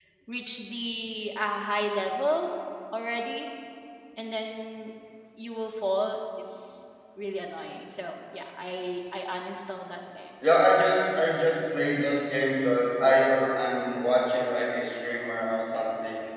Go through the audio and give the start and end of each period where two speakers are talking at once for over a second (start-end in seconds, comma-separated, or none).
none